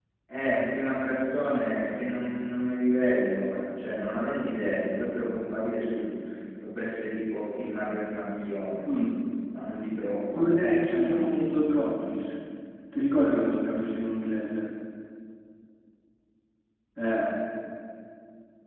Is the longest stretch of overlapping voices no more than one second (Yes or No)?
No